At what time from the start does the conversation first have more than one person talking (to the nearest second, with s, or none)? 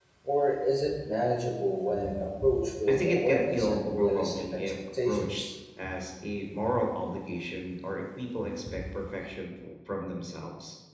3 s